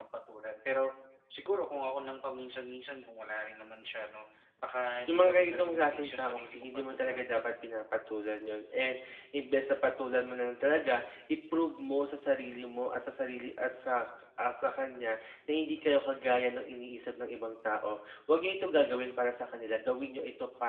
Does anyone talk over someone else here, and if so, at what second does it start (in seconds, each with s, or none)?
5.1 s